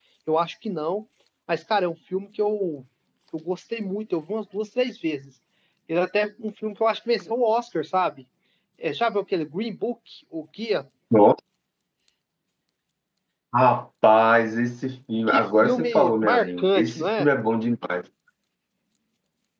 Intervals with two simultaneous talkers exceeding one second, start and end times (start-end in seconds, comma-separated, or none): 15.3-17.3